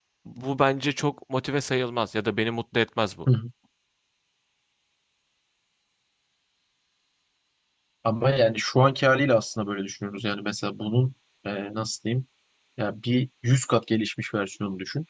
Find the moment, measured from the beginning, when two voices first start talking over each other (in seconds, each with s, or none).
none